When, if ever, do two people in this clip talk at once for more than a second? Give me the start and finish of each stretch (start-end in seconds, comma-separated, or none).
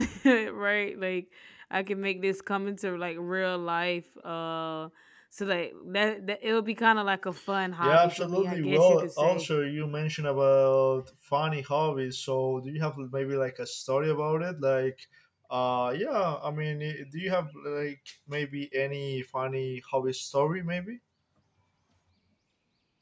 7.8-9.5